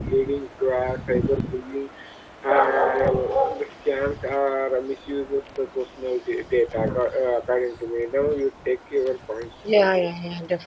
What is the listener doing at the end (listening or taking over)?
taking over